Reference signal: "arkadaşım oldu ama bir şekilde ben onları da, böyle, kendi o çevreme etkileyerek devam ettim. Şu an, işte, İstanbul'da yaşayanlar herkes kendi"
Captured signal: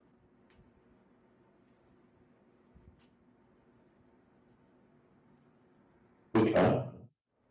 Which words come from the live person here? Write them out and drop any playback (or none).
Süper.